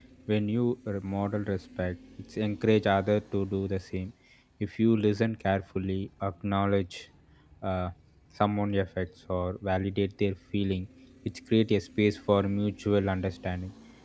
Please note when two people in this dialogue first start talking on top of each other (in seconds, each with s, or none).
none